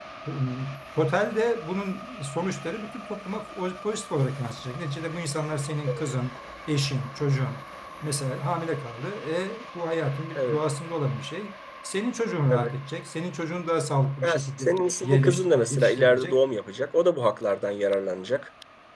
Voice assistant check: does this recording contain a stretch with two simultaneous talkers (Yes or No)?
Yes